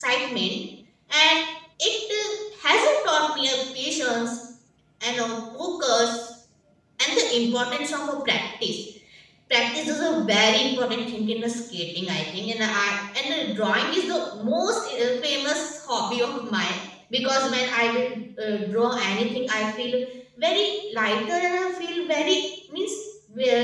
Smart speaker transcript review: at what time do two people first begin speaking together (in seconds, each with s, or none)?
none